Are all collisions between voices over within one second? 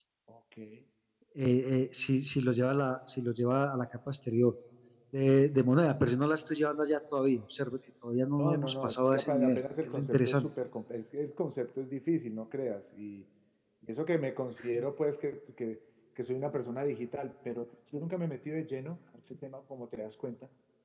No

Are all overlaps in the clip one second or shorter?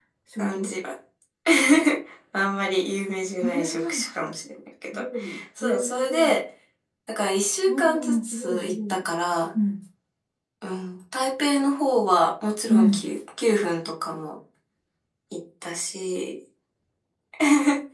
No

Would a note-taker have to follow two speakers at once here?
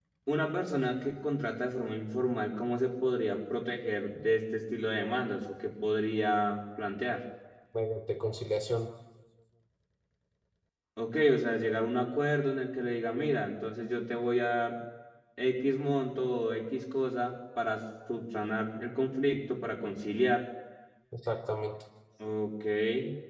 No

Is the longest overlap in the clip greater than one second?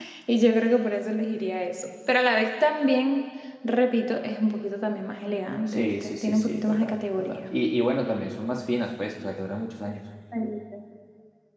Yes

